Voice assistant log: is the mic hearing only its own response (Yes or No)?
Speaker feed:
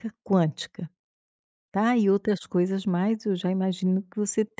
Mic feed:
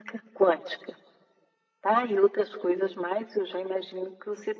Yes